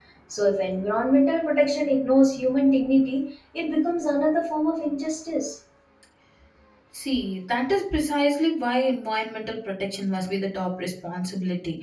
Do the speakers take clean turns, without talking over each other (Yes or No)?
Yes